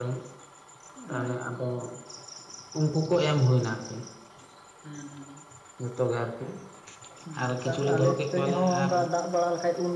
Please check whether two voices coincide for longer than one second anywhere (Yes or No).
Yes